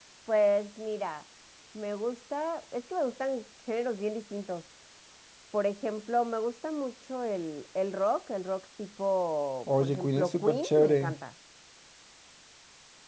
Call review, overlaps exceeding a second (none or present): present